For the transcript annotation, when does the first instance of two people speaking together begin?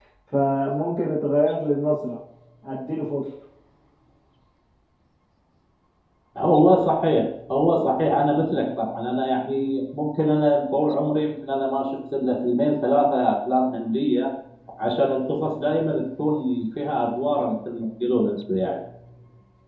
none

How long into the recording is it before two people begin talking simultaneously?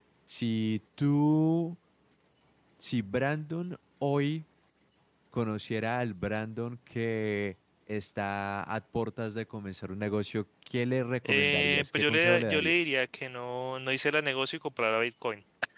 11.2 s

